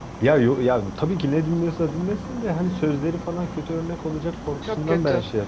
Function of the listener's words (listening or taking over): listening